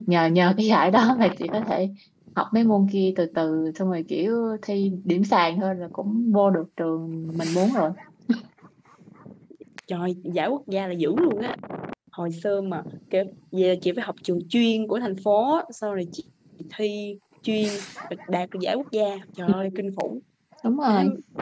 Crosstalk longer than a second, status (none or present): none